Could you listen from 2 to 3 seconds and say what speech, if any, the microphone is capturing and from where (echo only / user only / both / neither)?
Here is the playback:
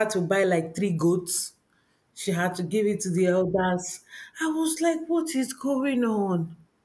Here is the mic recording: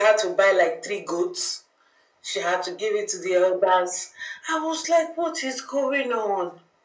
echo only